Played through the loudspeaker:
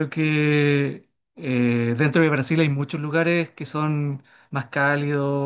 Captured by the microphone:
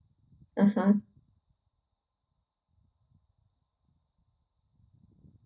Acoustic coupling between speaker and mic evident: No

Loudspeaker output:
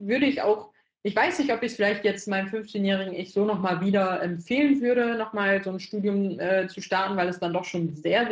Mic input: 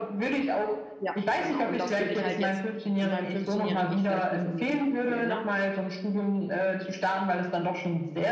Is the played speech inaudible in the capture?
No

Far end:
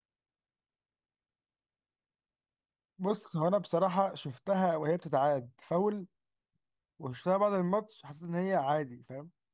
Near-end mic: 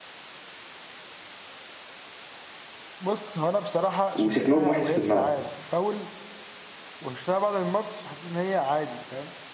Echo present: Yes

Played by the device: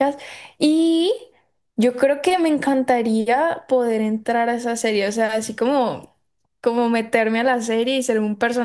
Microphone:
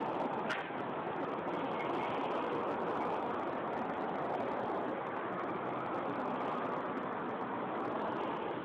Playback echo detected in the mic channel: No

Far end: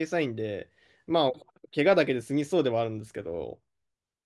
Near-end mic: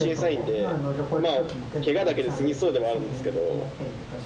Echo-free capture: No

